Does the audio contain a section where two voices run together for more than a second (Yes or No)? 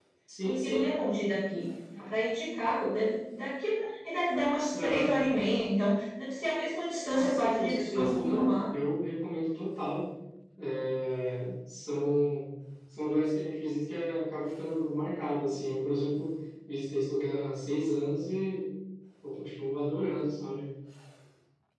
Yes